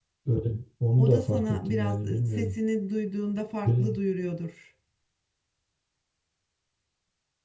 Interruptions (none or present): present